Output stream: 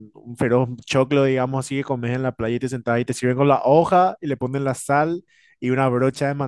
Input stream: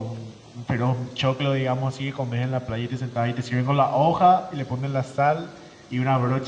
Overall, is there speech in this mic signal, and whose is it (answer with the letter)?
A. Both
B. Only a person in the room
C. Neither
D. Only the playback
D